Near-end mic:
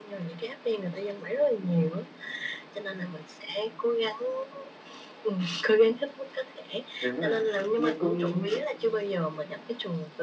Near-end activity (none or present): present